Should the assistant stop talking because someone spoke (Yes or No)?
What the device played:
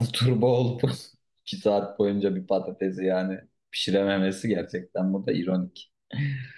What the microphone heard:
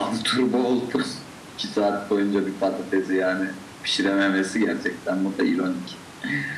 No